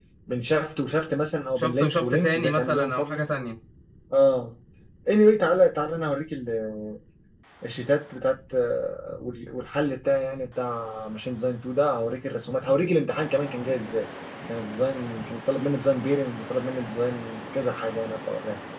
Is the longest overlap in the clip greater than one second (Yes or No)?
Yes